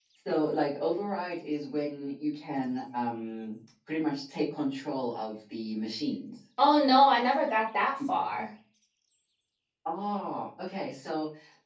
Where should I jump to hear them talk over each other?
none

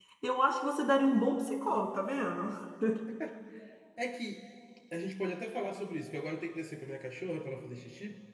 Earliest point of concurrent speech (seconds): none

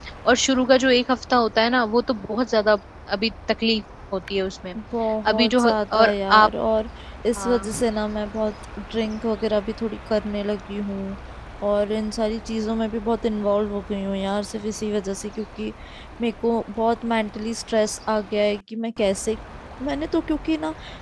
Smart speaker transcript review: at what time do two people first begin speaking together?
5.2 s

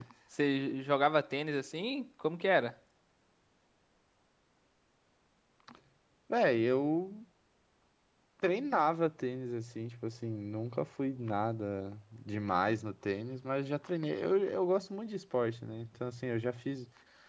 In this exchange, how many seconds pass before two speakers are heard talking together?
none

